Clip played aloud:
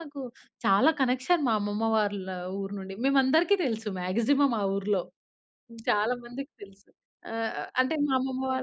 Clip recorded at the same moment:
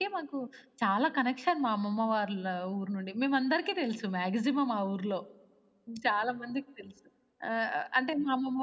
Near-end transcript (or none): none